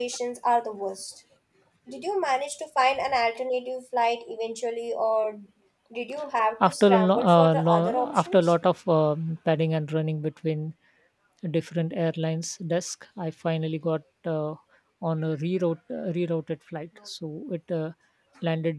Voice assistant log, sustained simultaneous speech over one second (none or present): present